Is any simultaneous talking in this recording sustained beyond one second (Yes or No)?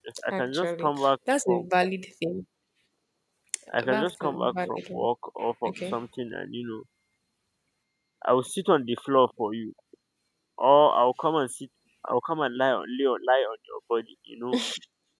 Yes